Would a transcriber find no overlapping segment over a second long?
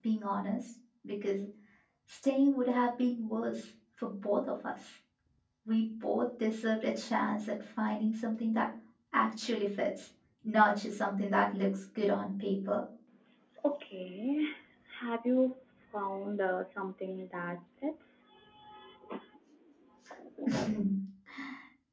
Yes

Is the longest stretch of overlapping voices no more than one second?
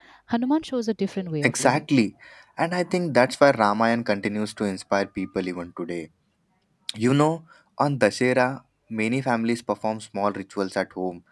Yes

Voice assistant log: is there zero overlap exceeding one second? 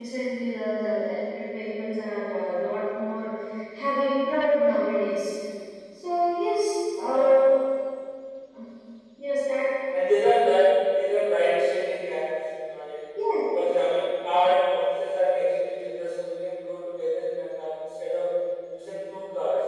Yes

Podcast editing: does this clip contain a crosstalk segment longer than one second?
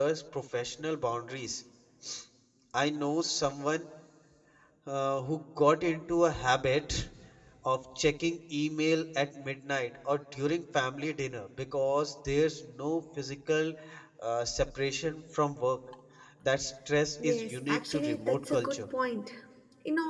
Yes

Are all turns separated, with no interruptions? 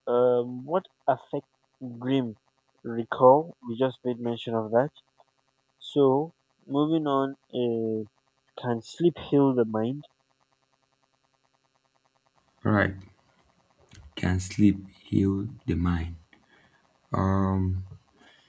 Yes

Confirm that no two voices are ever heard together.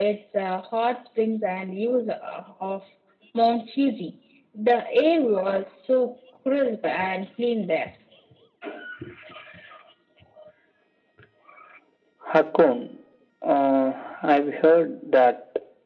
Yes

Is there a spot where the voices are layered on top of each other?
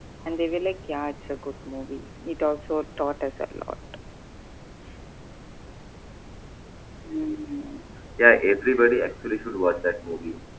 No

